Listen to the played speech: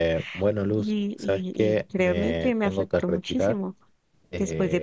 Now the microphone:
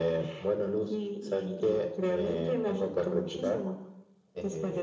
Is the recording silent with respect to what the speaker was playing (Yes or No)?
No